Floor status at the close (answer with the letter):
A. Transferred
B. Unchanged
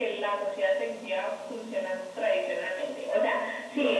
B